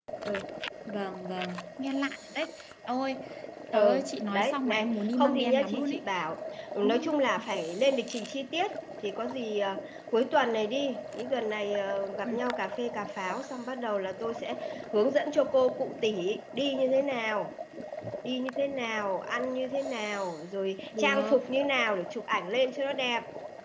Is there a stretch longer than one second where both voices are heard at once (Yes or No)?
Yes